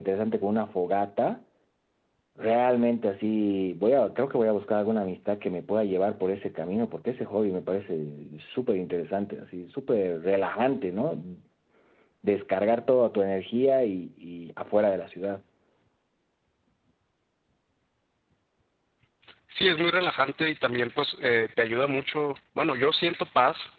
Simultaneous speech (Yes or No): No